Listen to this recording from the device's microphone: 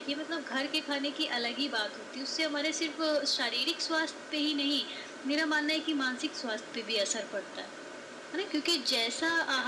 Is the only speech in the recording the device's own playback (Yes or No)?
Yes